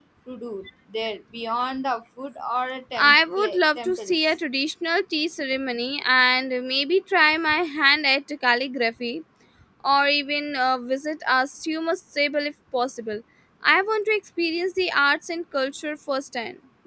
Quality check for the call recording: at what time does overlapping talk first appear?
3.0 s

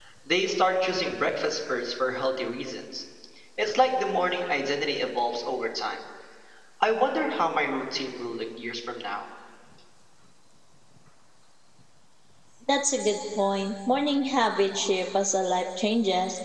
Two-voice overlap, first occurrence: none

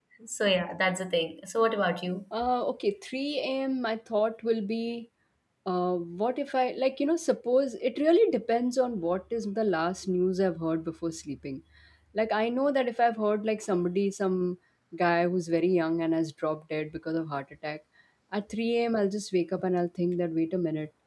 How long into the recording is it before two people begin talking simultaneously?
none

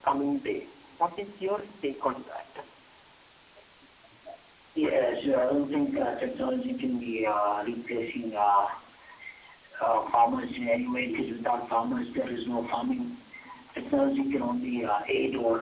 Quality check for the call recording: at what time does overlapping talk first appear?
none

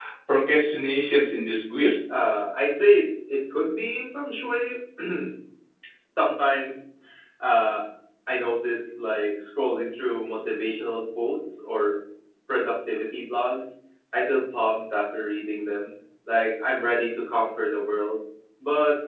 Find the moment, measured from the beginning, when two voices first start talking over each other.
none

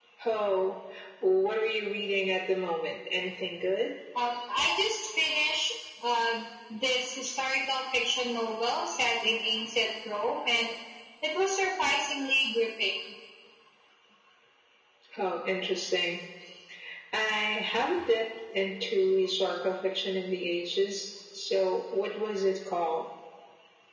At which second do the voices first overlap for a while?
none

